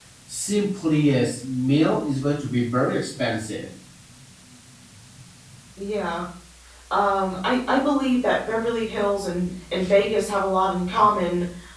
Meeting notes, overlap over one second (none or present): none